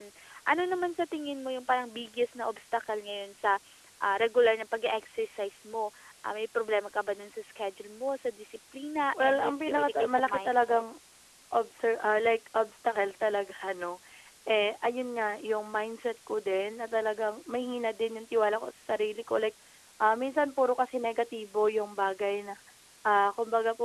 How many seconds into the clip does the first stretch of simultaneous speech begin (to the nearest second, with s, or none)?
9 s